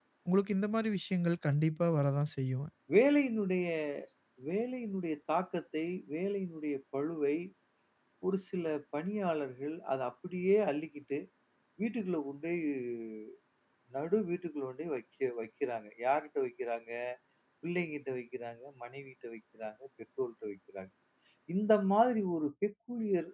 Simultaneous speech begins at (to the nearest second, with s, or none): none